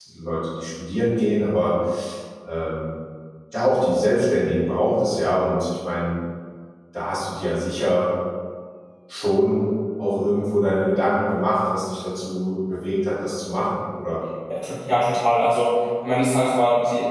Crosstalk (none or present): none